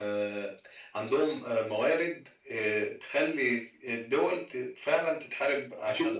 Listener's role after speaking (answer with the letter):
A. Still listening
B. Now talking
B